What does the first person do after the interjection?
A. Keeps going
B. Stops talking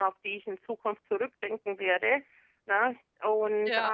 A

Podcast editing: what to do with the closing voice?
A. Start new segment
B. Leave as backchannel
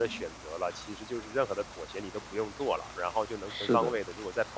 B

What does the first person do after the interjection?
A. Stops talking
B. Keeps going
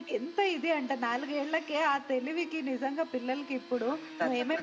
B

